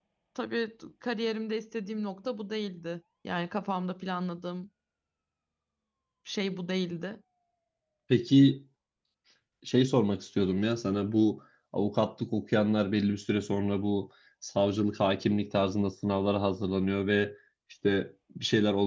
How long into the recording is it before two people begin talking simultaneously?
none

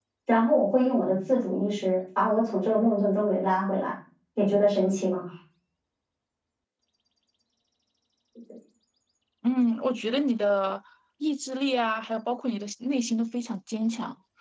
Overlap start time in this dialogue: none

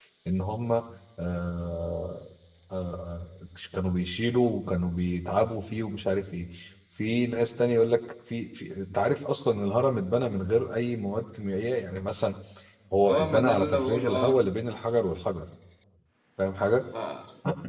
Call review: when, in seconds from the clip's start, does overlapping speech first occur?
13.1 s

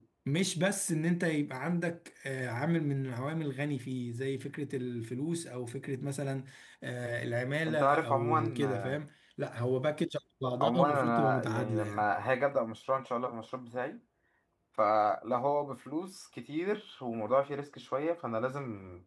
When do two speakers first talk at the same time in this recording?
7.6 s

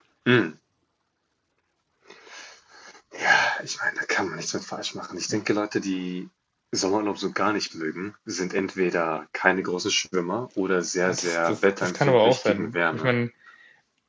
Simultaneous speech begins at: 11.0 s

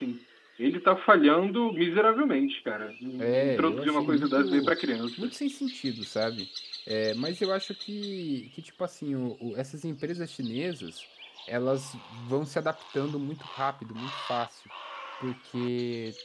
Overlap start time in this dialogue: 3.2 s

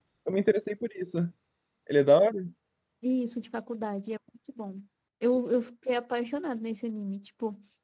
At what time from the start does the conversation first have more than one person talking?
none

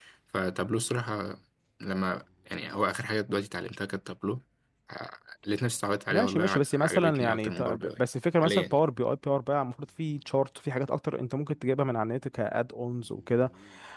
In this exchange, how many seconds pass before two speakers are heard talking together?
6.1 s

